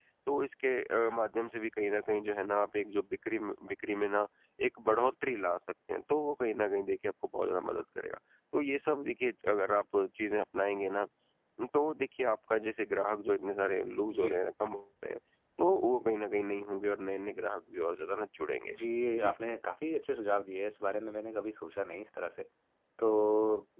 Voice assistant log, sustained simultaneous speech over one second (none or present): none